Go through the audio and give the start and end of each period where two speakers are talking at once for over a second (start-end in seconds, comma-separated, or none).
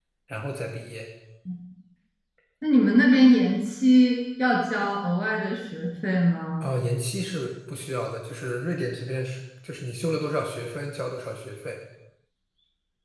none